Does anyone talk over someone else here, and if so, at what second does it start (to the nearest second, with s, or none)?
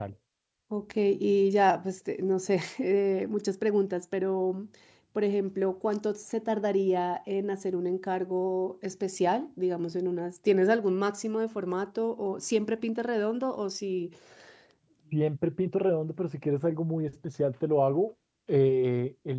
none